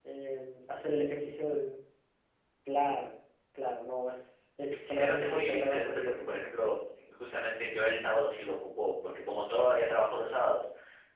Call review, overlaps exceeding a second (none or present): present